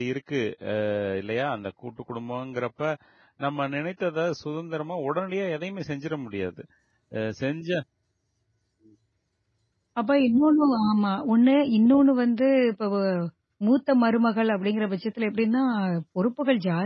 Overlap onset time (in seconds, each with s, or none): none